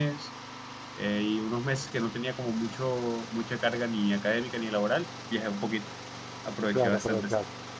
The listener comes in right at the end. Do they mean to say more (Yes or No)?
Yes